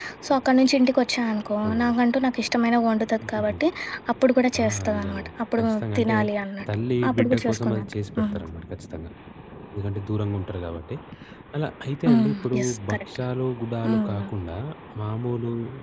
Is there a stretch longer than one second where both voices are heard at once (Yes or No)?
Yes